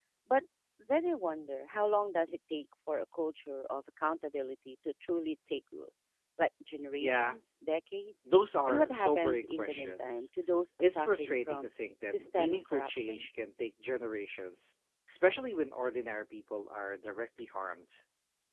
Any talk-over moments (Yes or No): Yes